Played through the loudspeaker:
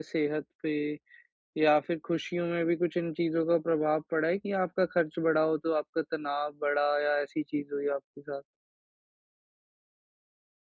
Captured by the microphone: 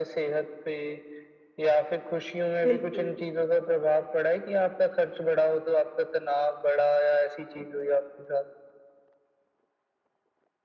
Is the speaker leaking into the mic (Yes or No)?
Yes